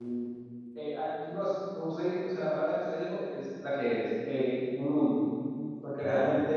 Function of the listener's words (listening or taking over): listening